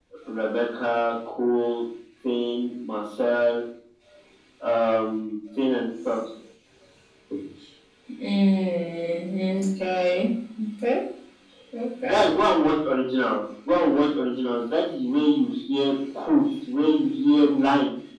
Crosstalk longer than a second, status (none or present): none